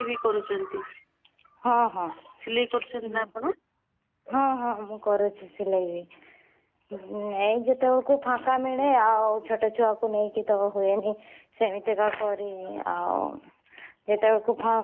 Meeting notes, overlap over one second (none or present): none